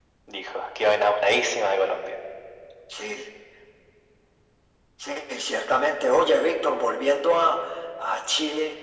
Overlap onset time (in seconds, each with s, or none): none